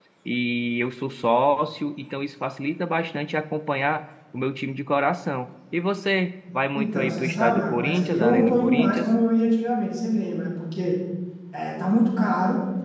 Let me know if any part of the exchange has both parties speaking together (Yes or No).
Yes